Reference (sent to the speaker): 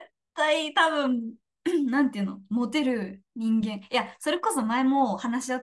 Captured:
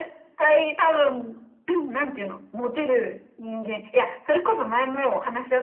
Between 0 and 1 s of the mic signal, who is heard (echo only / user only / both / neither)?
echo only